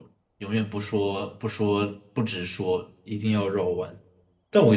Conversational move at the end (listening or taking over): listening